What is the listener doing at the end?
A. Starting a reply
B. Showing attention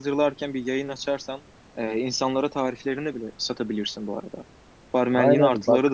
A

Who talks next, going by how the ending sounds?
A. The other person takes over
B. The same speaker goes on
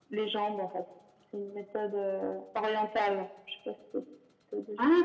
A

